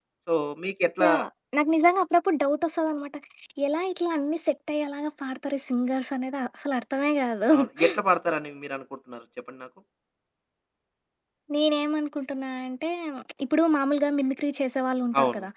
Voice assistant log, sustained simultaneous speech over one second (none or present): none